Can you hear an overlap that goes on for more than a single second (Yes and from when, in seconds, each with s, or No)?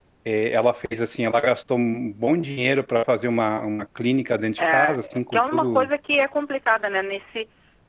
Yes, from 4.6 s